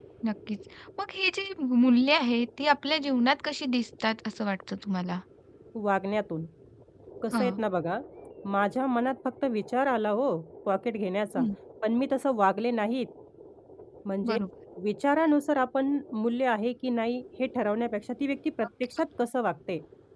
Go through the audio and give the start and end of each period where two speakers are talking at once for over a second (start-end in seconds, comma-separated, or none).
none